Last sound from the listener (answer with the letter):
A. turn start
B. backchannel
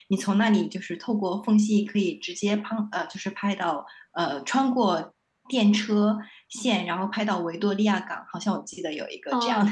A